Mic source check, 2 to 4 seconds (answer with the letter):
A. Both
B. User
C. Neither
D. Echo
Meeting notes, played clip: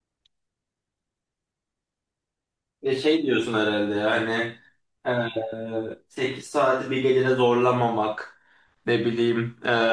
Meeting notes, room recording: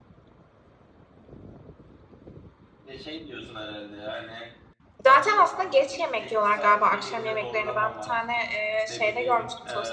D